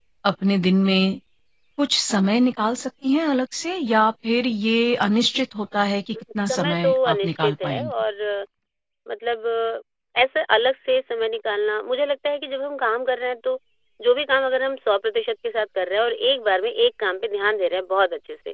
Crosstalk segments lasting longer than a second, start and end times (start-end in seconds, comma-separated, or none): 6.4-7.9